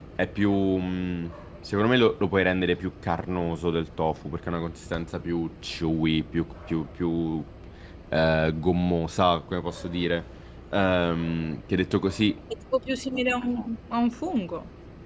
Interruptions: none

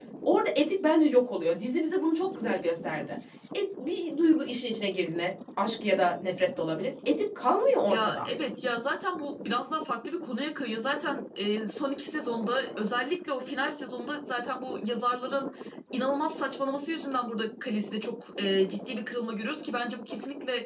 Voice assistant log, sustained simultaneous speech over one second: none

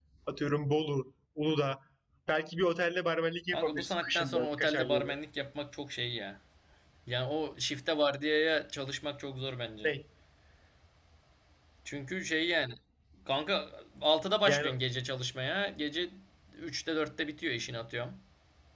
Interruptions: present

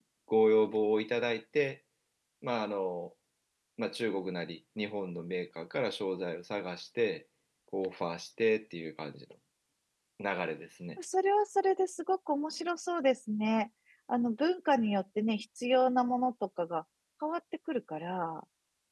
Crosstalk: none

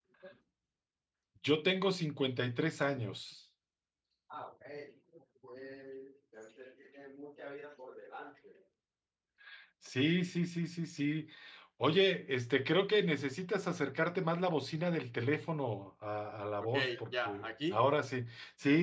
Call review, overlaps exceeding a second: present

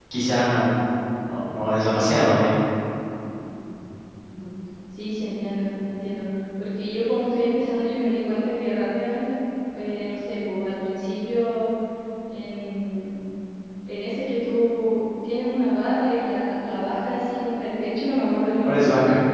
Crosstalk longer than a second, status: none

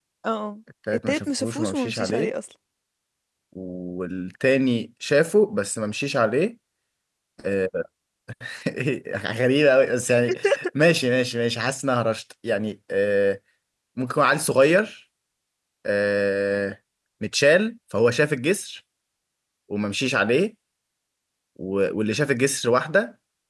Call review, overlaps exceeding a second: present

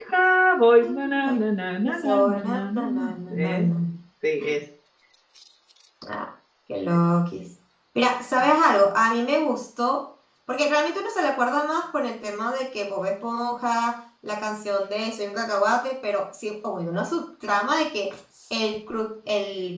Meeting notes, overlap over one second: present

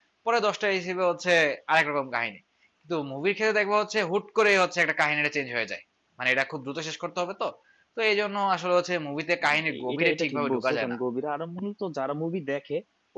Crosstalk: present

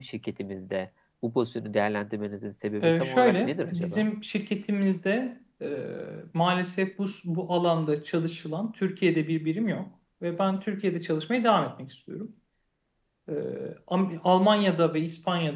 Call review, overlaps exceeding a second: present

